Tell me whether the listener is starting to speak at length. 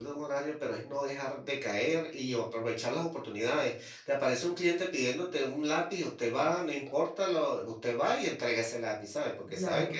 Yes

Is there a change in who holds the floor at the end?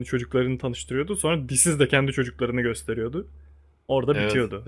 Yes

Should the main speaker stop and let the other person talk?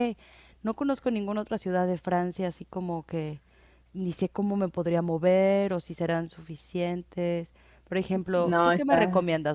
No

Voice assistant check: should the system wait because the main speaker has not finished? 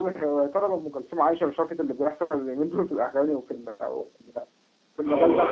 No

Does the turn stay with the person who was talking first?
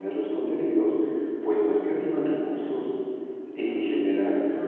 Yes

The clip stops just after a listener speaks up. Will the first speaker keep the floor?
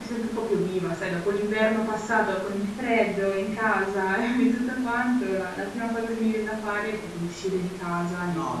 No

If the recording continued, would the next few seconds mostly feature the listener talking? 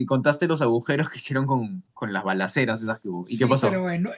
Yes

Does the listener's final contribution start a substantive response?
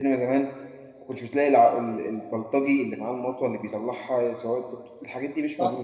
Yes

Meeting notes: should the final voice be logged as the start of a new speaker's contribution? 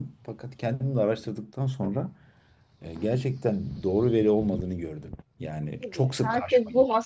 Yes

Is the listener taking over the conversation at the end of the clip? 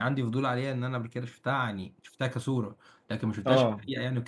No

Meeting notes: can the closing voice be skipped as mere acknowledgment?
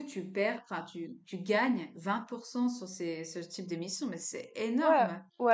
No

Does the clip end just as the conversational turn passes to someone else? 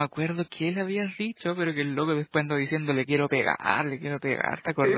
Yes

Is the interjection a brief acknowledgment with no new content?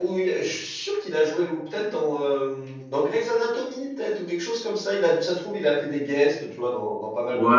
No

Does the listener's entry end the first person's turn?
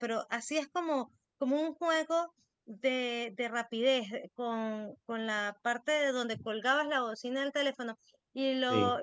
No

